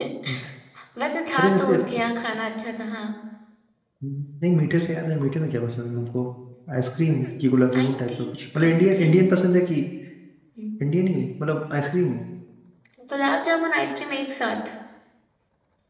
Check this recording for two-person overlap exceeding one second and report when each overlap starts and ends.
7.8-9.3

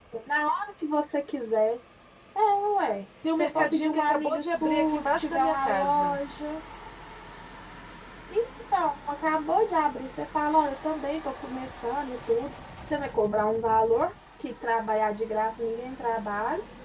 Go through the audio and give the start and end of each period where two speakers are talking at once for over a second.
3.4-6.2

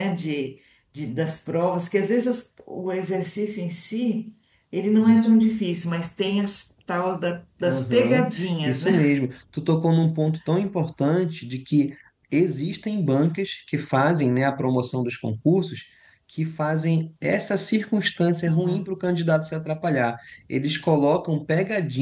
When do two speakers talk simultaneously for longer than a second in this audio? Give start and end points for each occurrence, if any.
7.6-9.0

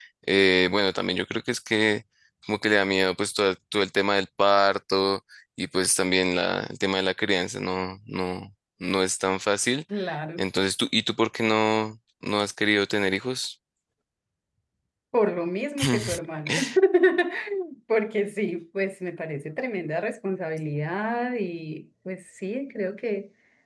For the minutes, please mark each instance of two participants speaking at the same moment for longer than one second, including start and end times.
none

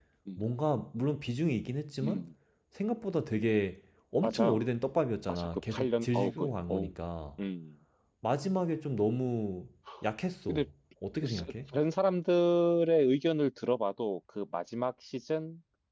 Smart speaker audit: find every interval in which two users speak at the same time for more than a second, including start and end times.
5.3-6.9

